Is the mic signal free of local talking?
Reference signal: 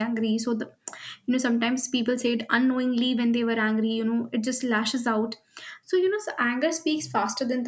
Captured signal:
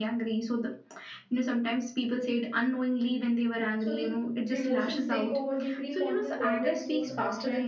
No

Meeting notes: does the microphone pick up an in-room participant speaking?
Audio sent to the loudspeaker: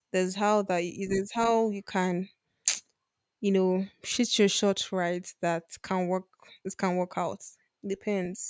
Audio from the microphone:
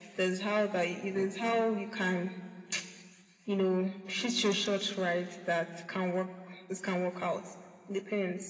No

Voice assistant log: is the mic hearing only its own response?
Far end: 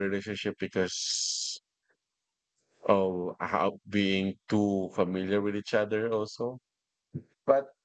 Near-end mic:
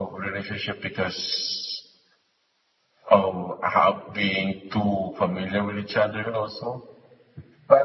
Yes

